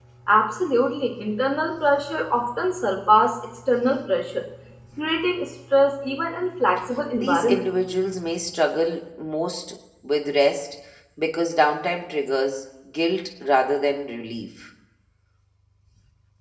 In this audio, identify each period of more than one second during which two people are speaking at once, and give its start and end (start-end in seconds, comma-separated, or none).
none